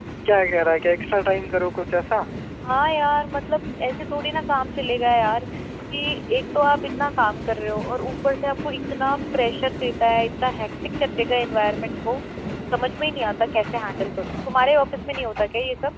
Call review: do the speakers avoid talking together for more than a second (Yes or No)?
Yes